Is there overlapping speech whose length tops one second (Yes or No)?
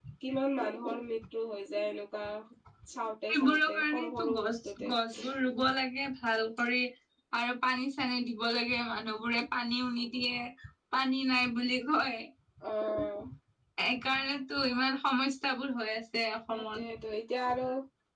Yes